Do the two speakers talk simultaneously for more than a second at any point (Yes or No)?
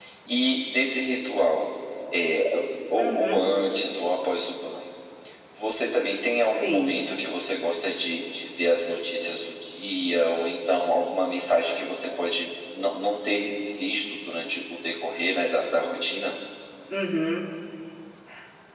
No